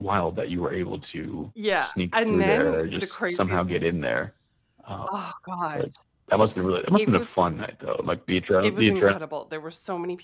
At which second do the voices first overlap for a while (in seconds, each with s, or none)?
1.8 s